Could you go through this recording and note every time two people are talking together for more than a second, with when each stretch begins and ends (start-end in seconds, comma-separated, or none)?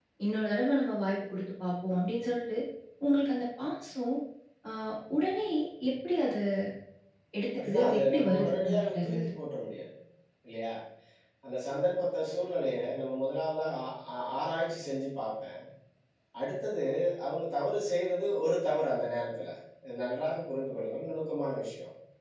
7.6-9.3